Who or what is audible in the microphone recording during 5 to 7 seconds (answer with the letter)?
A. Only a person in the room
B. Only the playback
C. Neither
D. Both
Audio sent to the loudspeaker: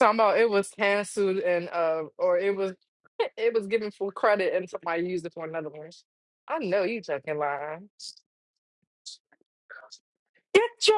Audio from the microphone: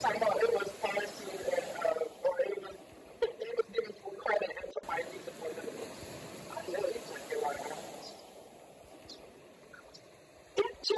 B